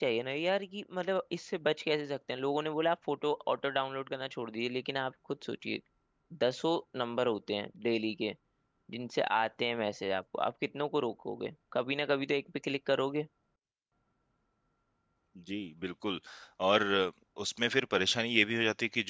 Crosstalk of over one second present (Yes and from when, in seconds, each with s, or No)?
No